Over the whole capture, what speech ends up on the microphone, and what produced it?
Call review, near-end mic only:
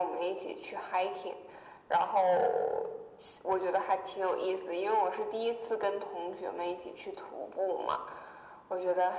echo only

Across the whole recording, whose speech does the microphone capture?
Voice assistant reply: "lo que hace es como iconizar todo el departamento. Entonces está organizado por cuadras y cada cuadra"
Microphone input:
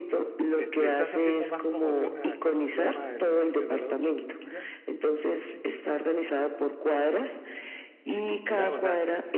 both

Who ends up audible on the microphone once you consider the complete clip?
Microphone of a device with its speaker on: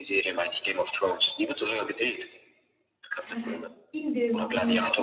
both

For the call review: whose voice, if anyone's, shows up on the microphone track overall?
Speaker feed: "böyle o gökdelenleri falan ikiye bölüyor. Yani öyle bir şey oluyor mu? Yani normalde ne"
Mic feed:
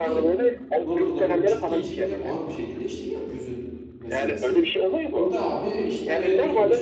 both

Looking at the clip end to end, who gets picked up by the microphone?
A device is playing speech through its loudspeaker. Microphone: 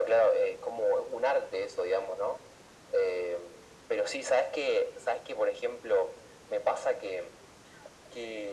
echo only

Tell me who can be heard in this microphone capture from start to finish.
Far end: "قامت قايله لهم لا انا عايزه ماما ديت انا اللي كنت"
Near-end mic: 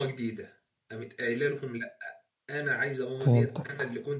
both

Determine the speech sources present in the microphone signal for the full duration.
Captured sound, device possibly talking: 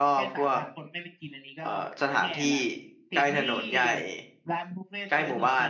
both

